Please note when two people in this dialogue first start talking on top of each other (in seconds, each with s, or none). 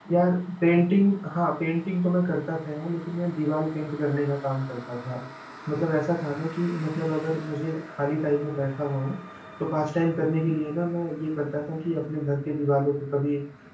none